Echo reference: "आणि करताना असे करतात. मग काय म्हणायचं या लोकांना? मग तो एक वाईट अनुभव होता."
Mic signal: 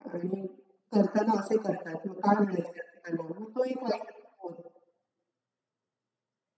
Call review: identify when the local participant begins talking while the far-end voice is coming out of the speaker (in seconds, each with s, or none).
none